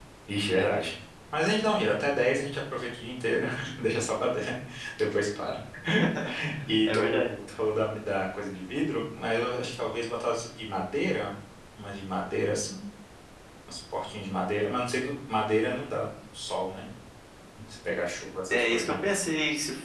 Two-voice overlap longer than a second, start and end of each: none

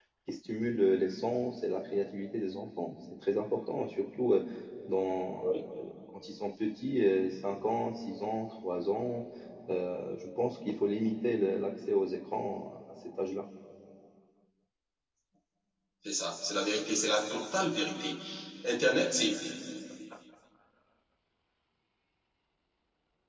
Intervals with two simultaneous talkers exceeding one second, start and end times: none

